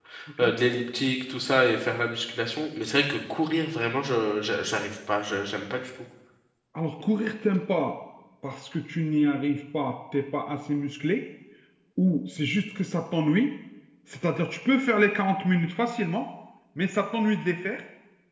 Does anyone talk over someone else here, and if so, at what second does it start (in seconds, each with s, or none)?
none